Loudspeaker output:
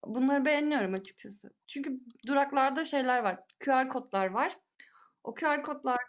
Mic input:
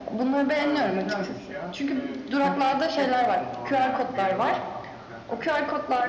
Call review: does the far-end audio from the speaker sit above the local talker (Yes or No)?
Yes